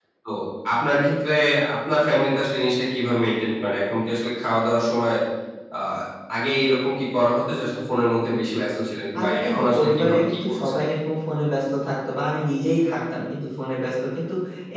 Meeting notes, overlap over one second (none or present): present